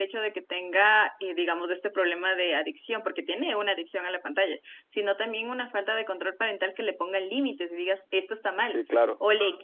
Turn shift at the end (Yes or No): No